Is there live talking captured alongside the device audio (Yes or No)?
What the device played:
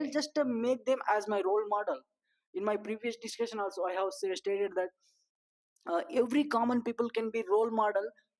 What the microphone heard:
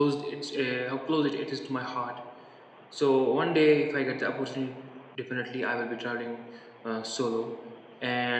Yes